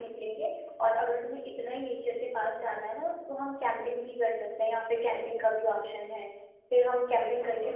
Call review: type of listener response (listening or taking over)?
listening